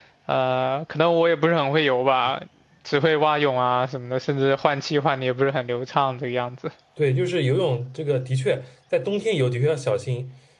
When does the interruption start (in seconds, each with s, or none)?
none